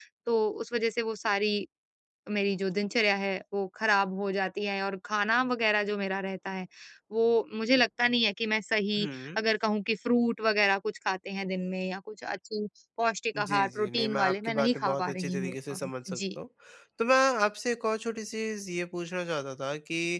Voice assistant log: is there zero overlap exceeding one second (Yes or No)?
No